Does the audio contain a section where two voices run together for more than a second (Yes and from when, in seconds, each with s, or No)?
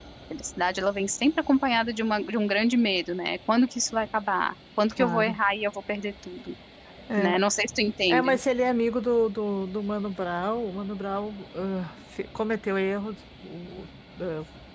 No